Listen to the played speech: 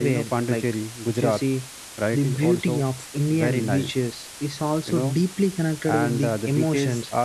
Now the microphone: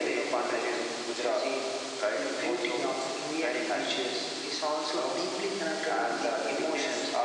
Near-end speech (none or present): none